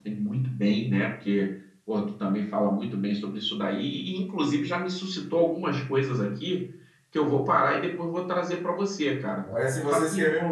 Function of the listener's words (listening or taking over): taking over